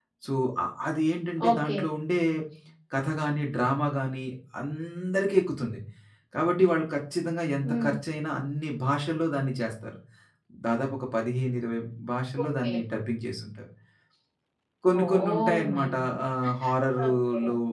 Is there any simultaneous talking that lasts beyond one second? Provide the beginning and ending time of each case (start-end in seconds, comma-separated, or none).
15.0-16.2